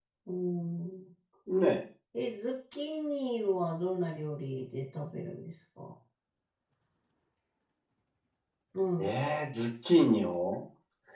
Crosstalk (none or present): none